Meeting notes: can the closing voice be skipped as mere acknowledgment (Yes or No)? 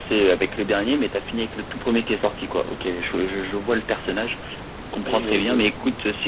Yes